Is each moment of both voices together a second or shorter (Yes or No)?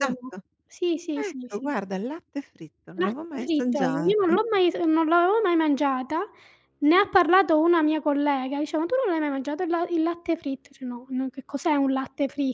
No